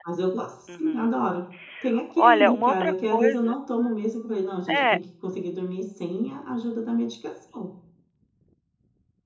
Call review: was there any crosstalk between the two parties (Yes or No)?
Yes